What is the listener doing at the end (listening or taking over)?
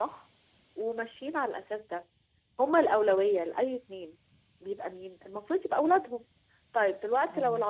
listening